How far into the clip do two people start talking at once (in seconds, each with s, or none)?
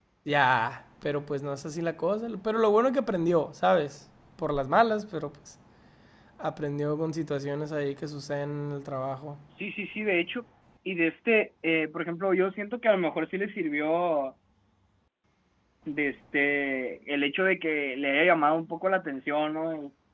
none